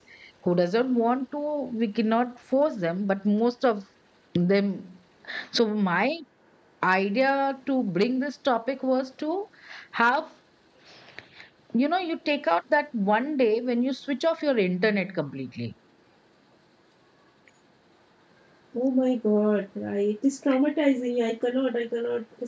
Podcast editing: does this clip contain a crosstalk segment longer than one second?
No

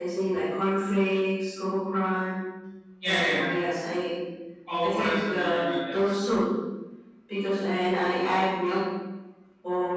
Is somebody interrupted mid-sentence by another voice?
Yes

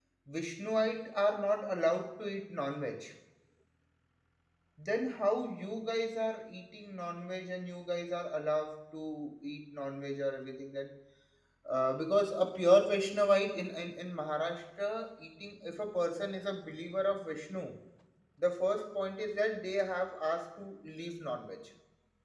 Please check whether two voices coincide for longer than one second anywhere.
No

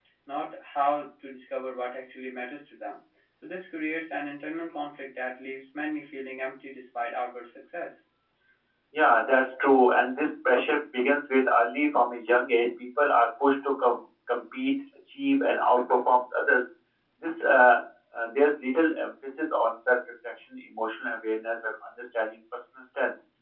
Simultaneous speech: No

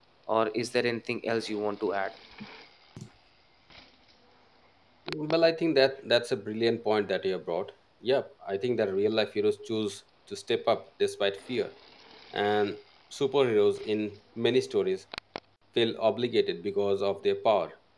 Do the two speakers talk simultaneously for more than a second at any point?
No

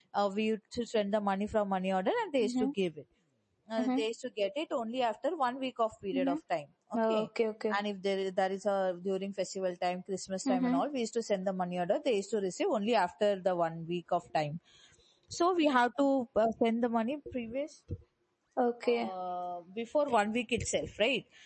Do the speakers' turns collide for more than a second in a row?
No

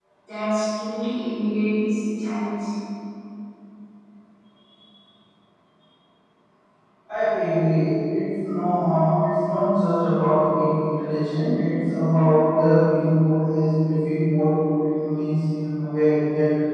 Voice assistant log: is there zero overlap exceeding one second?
Yes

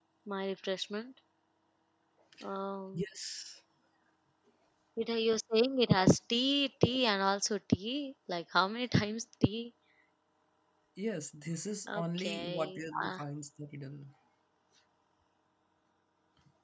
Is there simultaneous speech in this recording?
Yes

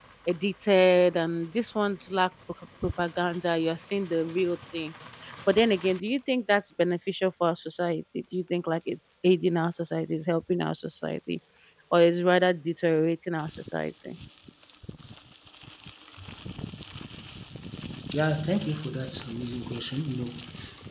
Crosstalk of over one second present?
No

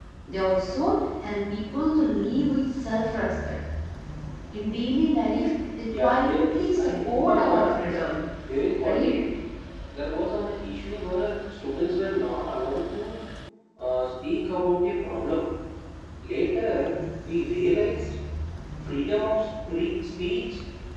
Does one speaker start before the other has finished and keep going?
Yes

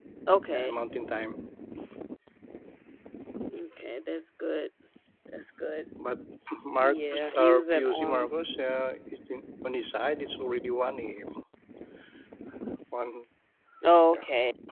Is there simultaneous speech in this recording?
Yes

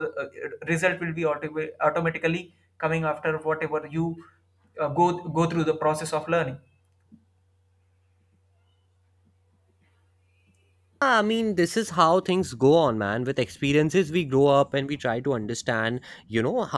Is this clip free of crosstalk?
Yes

